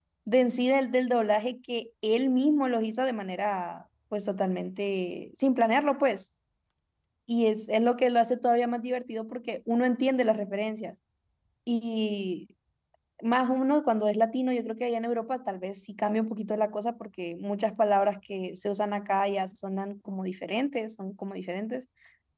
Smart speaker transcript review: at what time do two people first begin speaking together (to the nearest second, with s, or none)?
none